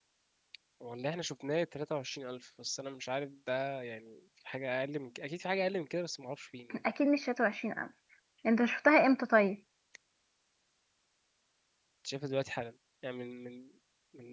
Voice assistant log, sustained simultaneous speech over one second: none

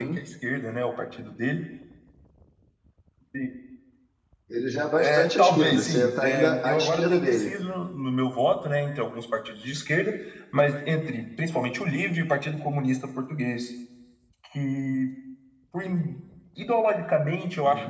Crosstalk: present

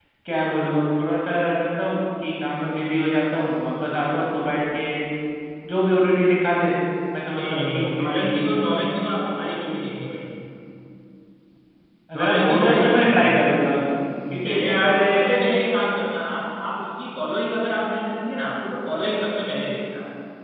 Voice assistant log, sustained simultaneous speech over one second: present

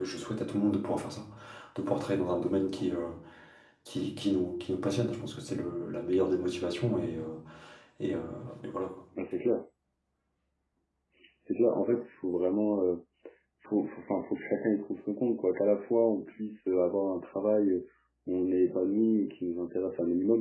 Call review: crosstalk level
none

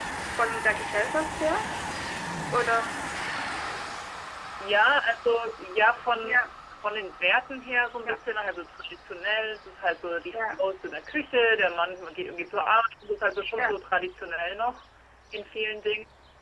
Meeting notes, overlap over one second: none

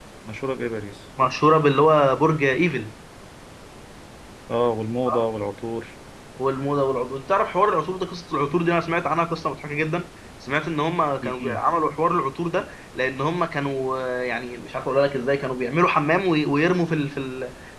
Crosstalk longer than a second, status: none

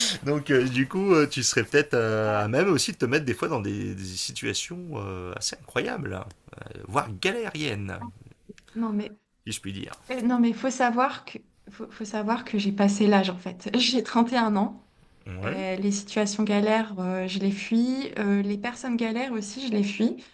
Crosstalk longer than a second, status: none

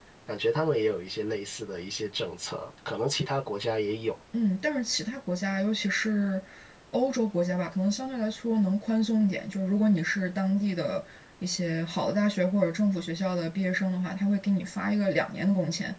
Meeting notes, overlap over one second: none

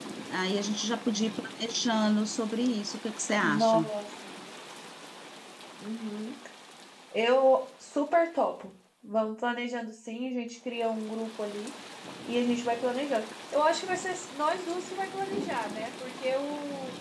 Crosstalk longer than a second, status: none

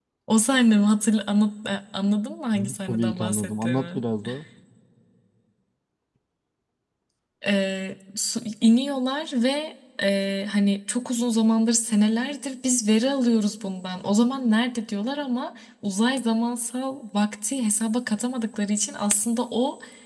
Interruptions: present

